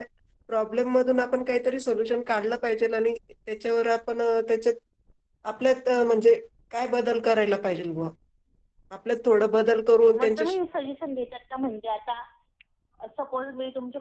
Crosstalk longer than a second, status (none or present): none